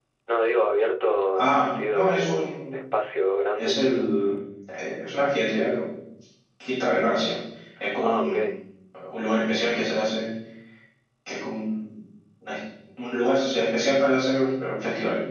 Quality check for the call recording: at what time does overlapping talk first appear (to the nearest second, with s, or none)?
1 s